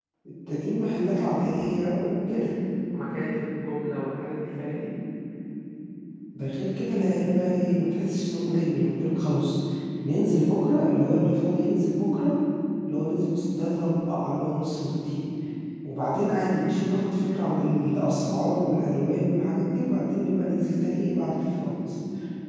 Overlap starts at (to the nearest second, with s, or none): none